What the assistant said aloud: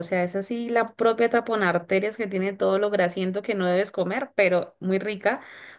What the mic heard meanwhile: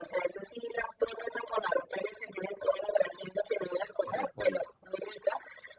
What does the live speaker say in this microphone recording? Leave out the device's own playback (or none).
de repollo.